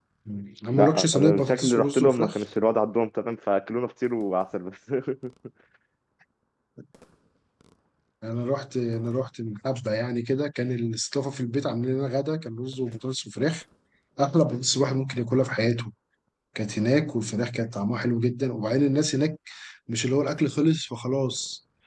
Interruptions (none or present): present